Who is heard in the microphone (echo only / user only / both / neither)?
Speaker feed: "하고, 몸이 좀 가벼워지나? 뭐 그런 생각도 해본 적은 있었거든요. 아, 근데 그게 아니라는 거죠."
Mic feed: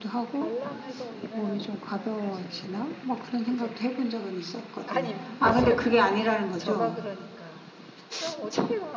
both